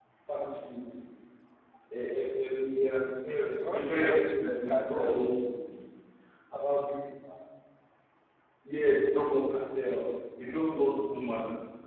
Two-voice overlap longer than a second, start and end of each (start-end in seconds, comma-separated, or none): 3.6-5.2